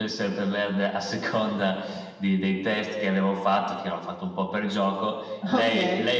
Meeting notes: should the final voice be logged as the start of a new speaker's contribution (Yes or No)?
No